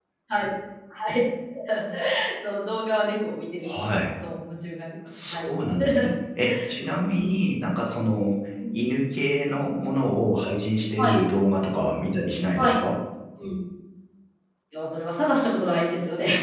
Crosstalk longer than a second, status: none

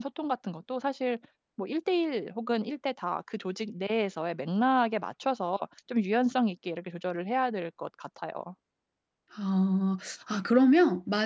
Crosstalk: none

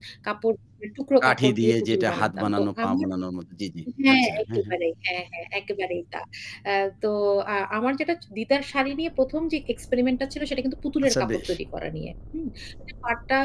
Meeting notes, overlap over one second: present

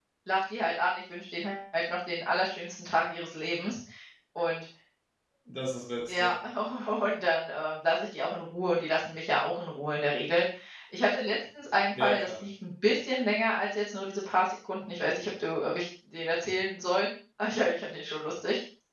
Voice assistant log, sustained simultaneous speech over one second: none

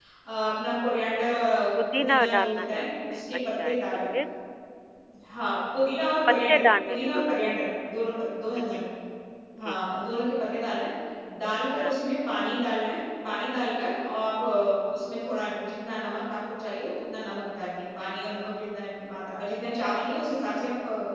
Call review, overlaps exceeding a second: present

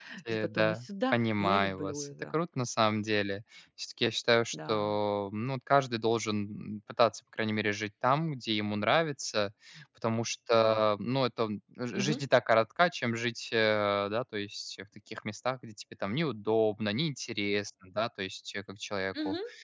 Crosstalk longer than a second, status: present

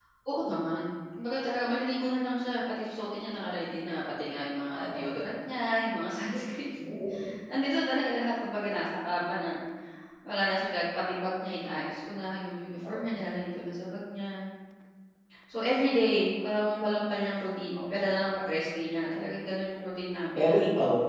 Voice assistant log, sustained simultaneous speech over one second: none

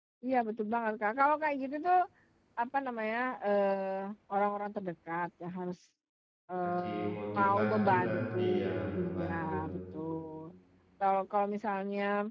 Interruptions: present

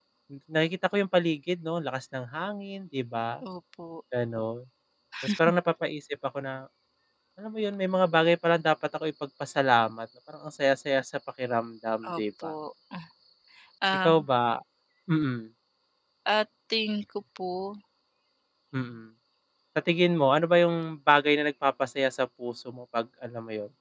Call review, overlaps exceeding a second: none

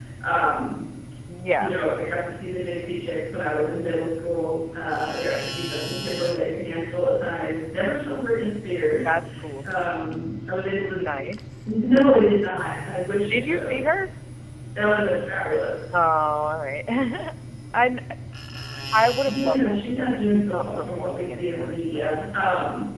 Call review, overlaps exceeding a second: present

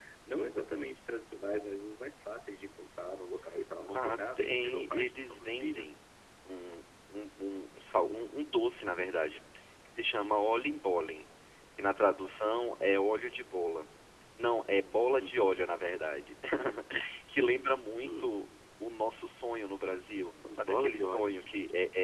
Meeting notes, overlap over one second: present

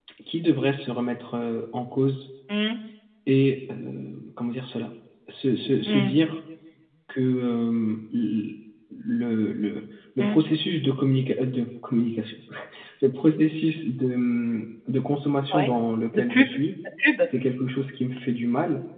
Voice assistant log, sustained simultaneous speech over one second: none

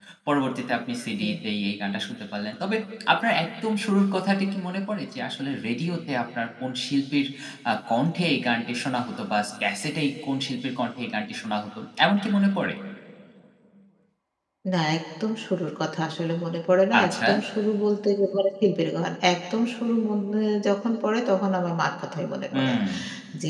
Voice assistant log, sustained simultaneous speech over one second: none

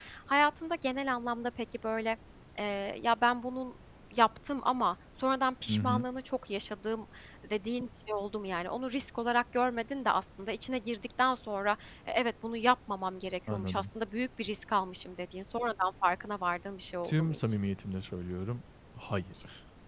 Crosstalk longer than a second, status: none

